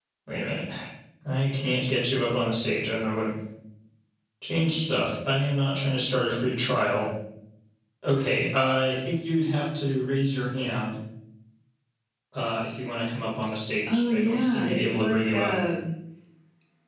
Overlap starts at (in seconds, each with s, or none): 13.9 s